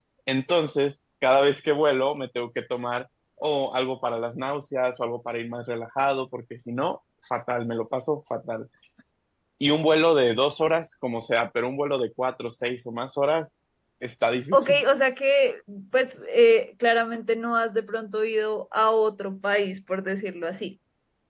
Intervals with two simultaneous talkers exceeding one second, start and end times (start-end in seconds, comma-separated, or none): none